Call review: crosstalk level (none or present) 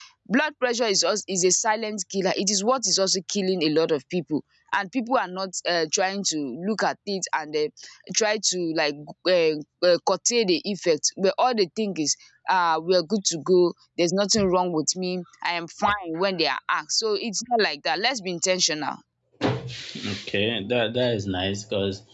none